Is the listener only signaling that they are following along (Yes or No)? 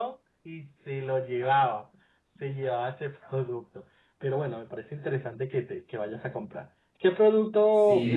No